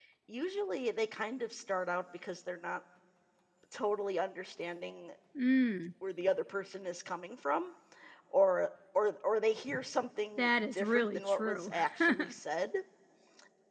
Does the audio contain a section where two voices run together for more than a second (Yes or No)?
Yes